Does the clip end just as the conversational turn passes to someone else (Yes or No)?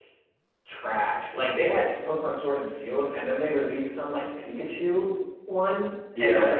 No